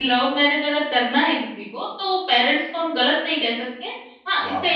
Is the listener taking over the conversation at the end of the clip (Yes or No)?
No